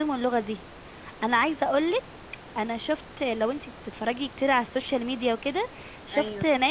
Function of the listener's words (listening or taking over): listening